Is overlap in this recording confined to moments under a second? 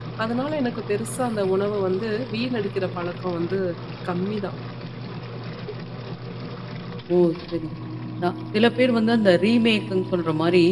Yes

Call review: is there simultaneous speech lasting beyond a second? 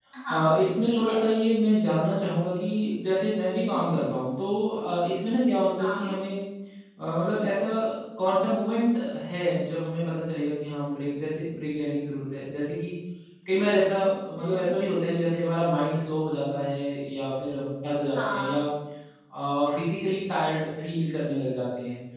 No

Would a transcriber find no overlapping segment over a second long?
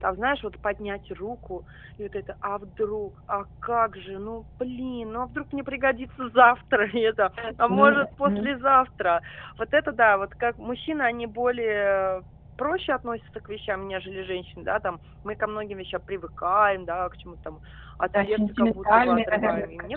No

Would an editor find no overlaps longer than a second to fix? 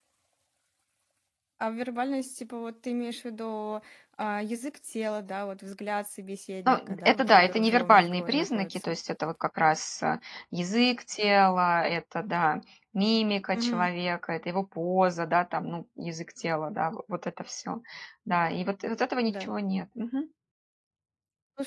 No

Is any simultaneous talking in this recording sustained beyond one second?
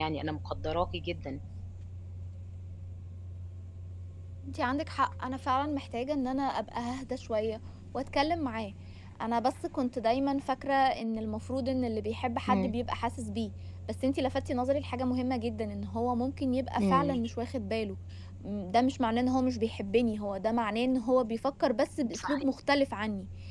No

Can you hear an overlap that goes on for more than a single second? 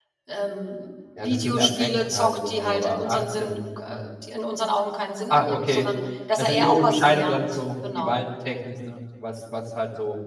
Yes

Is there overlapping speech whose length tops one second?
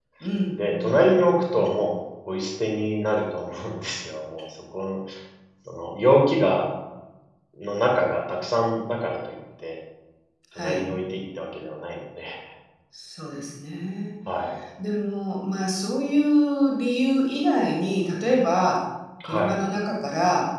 No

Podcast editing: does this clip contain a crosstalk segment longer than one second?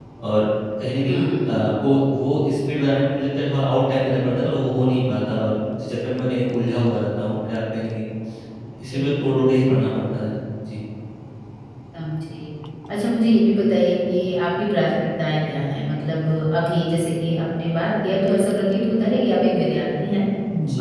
No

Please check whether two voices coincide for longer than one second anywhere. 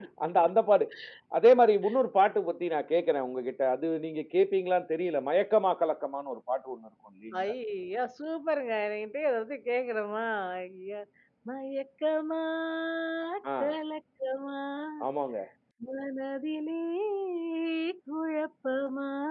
No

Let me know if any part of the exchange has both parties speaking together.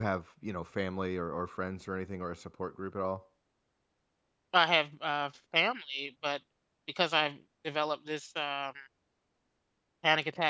No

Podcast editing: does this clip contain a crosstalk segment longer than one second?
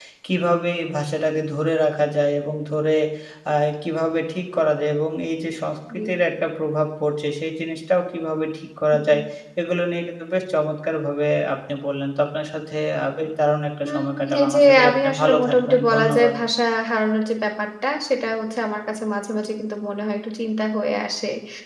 Yes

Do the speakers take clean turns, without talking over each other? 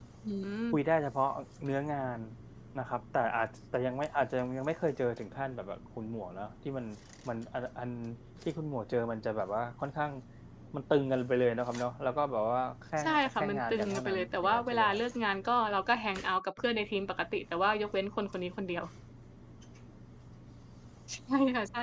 No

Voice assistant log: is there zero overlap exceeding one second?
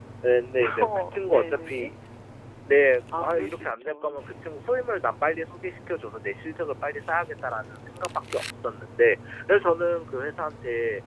No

